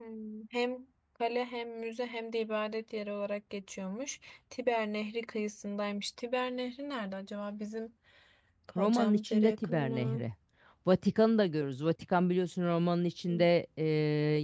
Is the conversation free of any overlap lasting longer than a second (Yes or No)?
No